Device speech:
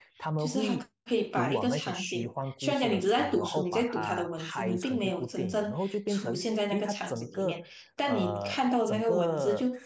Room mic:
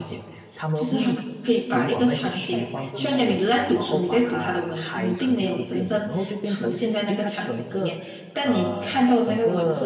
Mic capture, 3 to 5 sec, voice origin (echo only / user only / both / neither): both